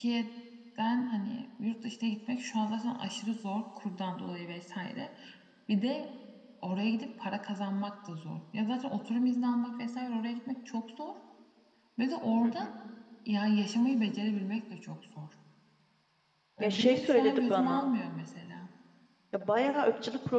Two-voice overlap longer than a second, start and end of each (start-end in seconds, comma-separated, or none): 16.6-17.9